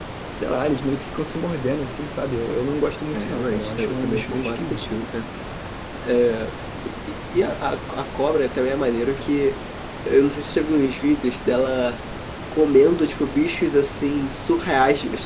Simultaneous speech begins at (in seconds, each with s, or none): 3.1 s